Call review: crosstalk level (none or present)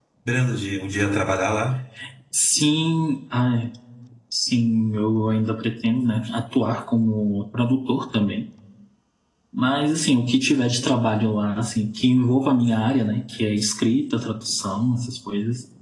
none